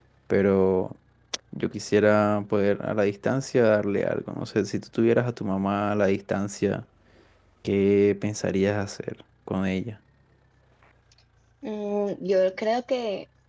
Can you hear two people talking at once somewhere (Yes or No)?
No